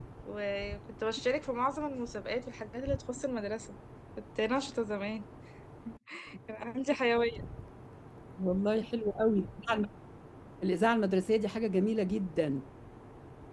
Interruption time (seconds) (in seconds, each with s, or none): none